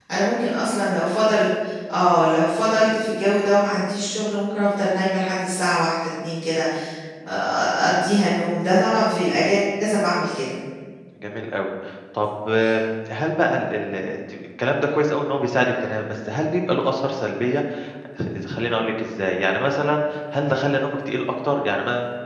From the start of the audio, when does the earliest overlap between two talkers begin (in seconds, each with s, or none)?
none